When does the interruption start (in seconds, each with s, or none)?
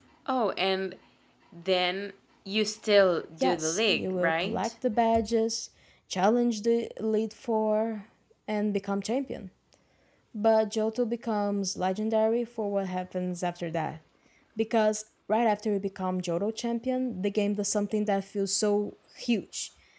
3.4 s